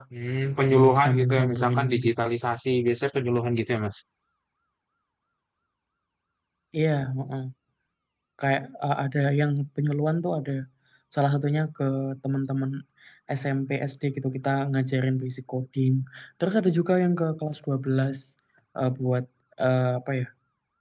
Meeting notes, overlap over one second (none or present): present